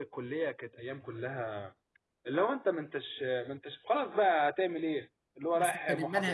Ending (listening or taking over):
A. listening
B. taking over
B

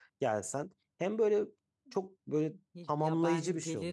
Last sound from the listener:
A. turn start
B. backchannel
A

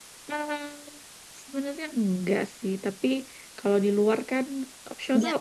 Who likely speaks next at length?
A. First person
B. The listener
A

